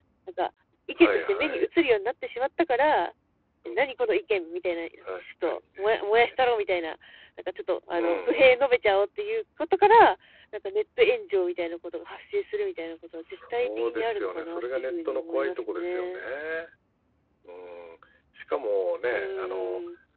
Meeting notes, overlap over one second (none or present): present